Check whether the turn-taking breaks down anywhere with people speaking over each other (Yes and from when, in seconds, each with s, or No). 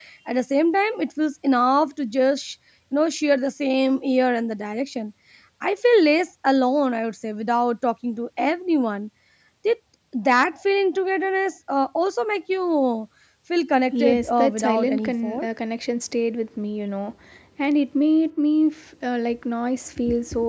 Yes, from 13.9 s